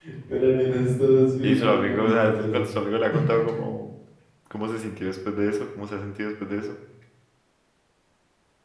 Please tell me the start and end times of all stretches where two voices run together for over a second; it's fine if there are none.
1.4-2.7

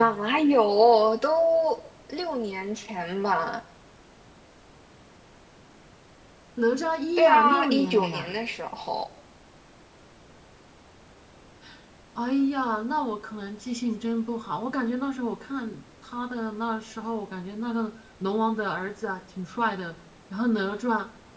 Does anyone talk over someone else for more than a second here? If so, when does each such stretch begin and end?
7.2-8.4

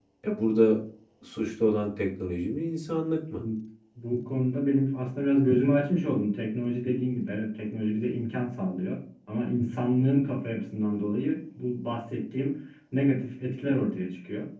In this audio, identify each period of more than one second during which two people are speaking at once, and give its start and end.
none

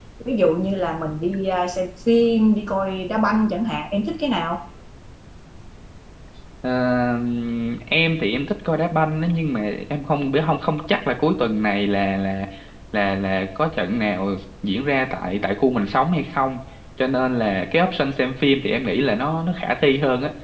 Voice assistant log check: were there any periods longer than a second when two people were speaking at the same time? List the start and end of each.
none

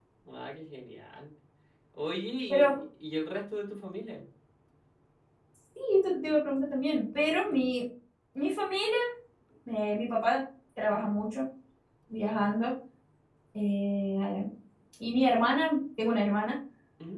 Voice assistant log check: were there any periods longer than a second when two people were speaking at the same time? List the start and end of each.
none

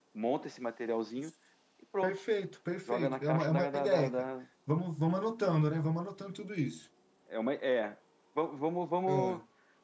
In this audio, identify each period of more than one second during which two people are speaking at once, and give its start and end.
2.9-4.2

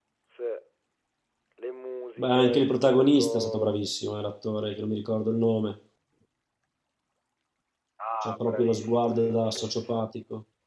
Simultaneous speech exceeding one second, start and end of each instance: 2.2-3.8, 8.2-10.0

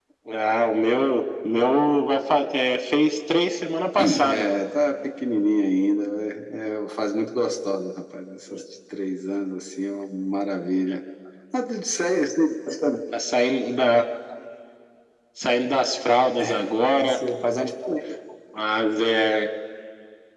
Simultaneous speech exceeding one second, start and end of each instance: none

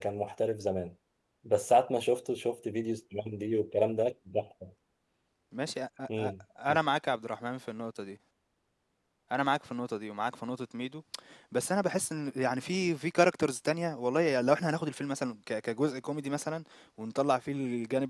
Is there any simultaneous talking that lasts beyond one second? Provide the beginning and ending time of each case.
none

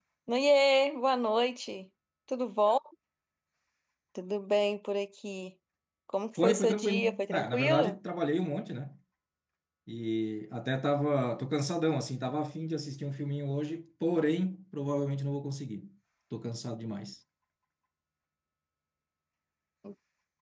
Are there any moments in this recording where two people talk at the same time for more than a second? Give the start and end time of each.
6.4-8.0

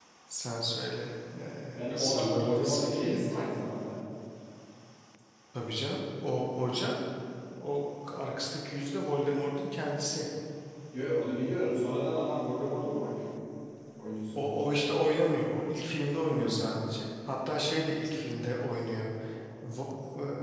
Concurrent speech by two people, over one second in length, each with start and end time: 1.7-3.2

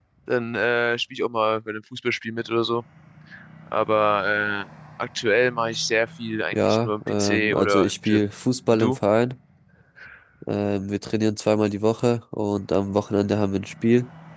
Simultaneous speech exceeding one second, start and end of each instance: 6.5-8.2

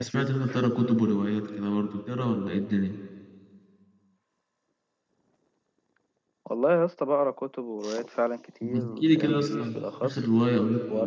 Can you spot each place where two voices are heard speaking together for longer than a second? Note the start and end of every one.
8.6-10.2

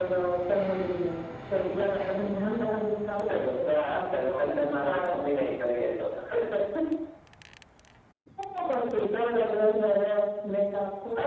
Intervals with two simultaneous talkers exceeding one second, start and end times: 3.3-5.2

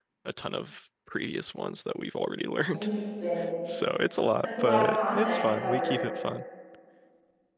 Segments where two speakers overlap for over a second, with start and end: 4.4-6.0

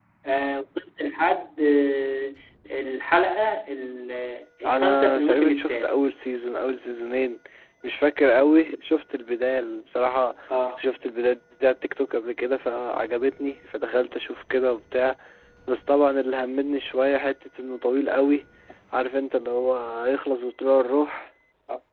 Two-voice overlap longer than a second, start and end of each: 4.7-5.9

